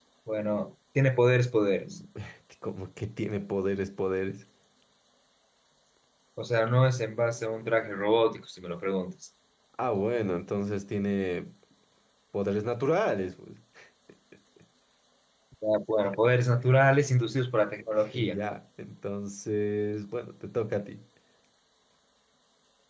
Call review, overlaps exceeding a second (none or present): none